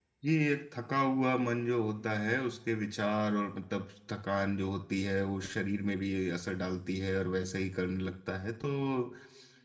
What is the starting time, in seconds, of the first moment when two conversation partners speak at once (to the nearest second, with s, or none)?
none